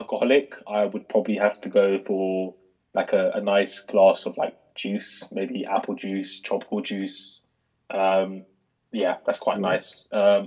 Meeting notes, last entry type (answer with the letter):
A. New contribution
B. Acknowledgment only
B